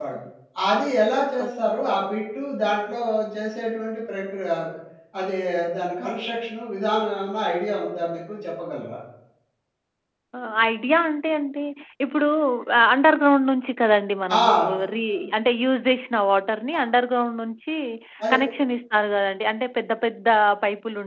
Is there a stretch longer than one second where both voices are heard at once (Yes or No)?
No